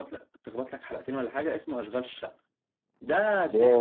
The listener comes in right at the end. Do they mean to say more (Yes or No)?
Yes